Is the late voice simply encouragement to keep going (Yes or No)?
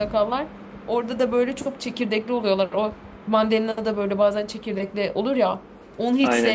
No